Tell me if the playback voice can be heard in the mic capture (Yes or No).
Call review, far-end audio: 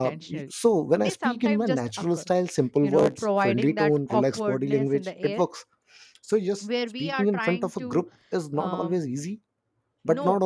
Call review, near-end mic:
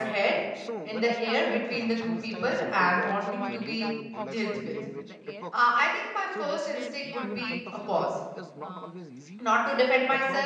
Yes